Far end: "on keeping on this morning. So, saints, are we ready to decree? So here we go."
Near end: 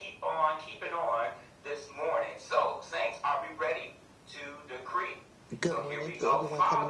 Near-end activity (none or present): present